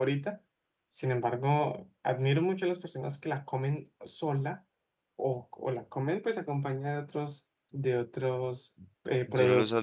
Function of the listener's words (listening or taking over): taking over